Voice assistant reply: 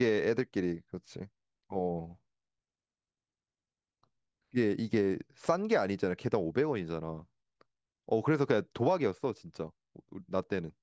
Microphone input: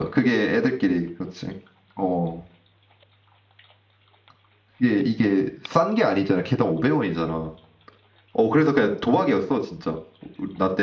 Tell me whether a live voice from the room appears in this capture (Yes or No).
No